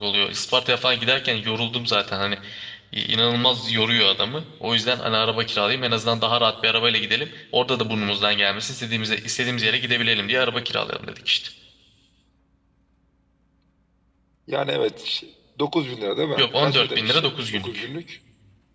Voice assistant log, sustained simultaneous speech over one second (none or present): present